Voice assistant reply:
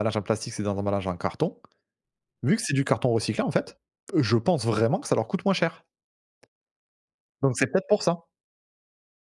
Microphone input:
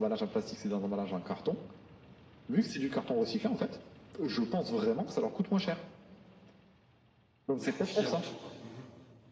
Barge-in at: 7.5 s

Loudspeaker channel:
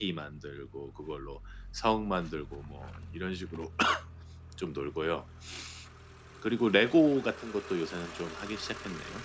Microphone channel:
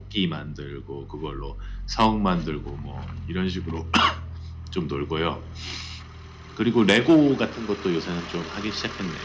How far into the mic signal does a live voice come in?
none

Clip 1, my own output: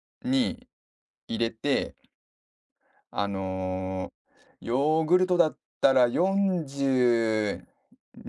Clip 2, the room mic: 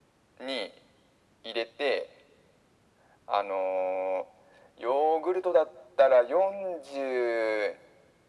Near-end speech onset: none

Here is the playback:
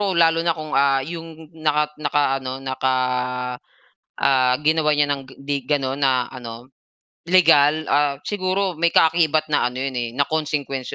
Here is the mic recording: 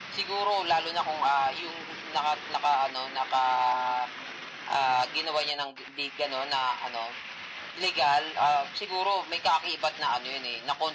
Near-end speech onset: none

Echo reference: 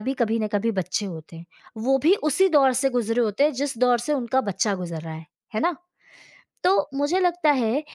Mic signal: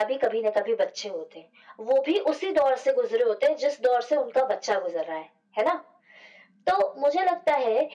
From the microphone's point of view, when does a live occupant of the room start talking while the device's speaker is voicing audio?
none

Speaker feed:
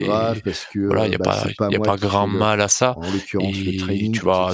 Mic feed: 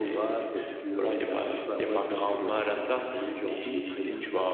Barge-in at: 2.6 s

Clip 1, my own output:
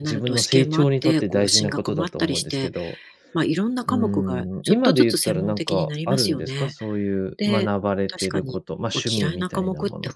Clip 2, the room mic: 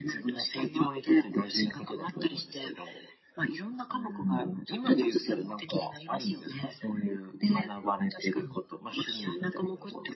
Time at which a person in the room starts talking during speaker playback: none

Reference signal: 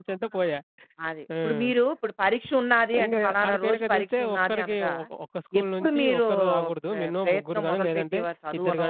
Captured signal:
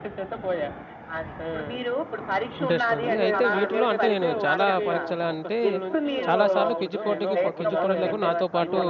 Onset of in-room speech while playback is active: 2.6 s

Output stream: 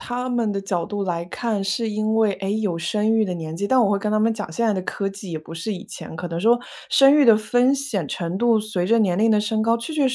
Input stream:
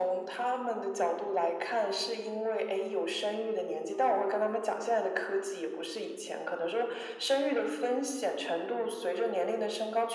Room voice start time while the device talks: none

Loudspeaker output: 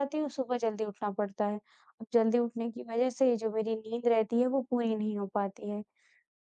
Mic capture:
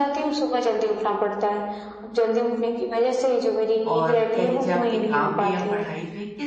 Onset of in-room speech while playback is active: 3.9 s

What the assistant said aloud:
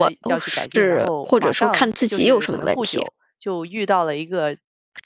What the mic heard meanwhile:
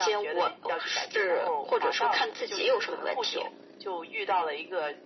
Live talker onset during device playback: none

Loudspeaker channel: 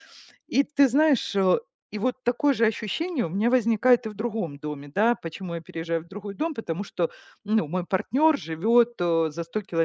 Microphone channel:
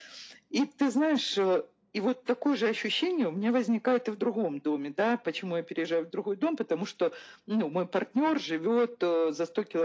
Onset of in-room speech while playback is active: none

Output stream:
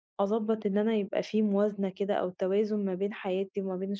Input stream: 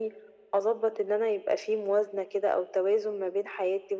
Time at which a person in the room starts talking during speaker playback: none

